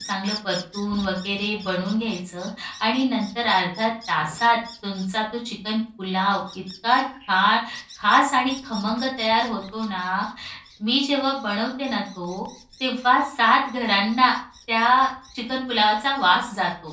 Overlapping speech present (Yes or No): No